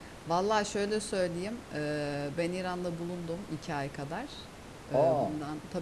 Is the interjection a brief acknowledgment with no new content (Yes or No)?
Yes